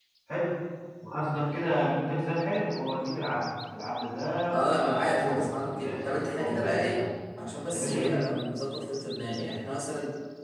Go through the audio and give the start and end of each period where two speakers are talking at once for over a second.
4.7-7.0

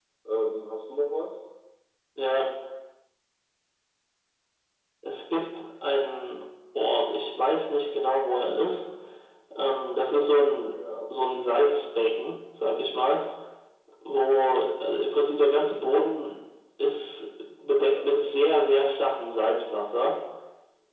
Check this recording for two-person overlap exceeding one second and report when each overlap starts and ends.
none

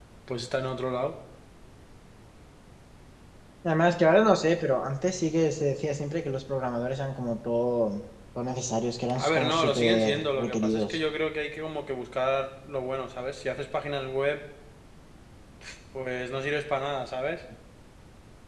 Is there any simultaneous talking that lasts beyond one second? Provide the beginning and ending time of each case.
9.1-11.0

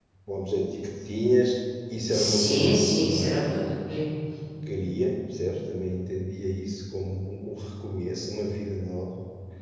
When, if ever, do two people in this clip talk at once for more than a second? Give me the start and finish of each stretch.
2.1-3.4

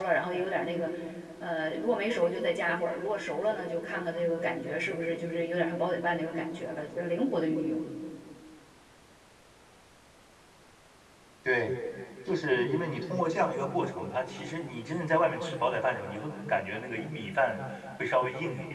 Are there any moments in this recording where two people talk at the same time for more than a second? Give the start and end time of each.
none

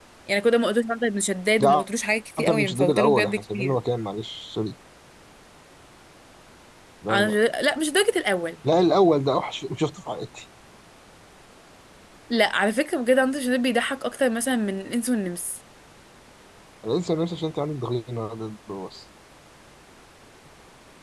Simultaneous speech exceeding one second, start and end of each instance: 2.4-3.8

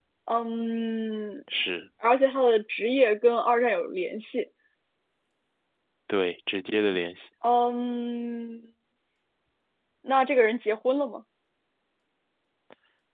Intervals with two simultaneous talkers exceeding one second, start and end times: none

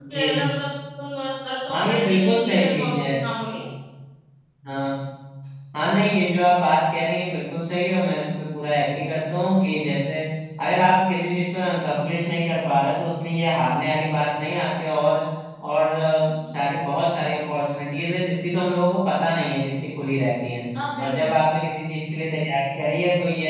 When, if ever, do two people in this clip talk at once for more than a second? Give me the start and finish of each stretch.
1.7-3.1

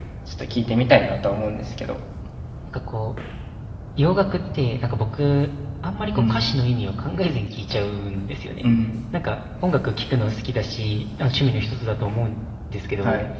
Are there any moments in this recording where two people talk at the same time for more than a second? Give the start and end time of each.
none

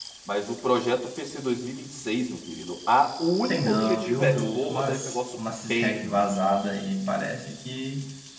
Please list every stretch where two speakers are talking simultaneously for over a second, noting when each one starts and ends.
3.5-6.2

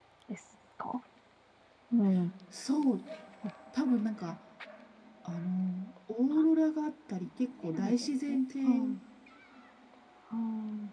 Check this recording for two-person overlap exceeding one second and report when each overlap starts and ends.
7.6-9.0

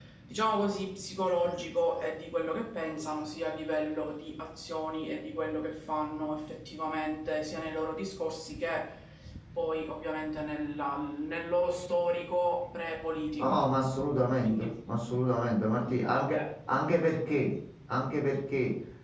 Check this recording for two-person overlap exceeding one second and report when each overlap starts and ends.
none

